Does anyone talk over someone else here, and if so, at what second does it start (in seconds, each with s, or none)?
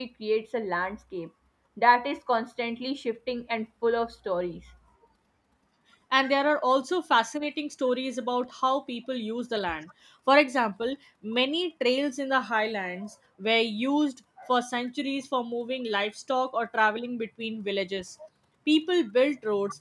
none